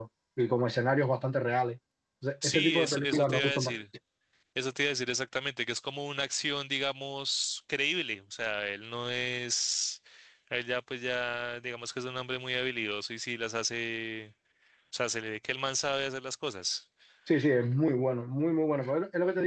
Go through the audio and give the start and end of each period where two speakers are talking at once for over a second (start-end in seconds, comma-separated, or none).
2.4-3.8